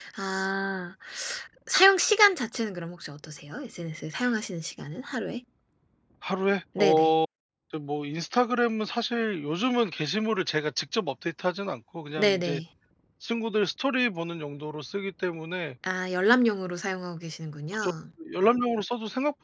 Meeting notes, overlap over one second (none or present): none